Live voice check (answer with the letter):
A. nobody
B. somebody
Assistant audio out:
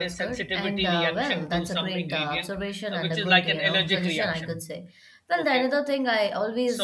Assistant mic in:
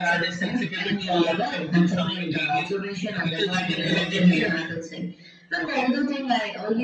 B